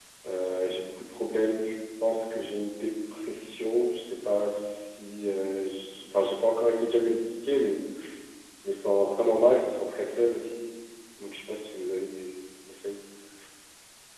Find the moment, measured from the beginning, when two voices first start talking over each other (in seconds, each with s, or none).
none